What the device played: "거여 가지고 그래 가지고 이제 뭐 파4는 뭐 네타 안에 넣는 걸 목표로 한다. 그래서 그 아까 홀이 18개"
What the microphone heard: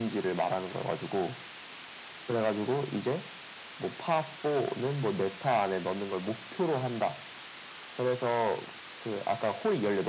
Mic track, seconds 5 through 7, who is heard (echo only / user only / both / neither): echo only